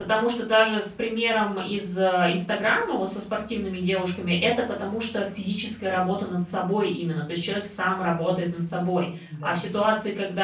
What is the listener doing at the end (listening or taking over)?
listening